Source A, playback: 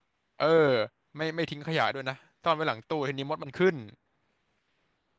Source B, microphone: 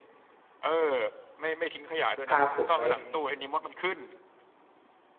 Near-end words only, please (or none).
พาผมไป